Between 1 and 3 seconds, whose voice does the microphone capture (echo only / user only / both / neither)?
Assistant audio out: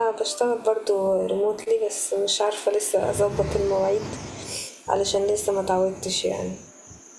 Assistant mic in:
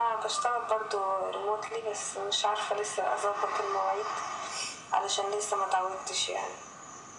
echo only